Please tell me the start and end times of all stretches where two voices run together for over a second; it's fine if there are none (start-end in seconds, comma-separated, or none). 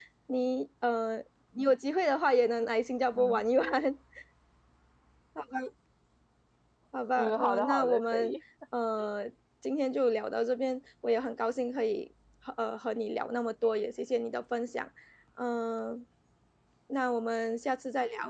7.1-8.4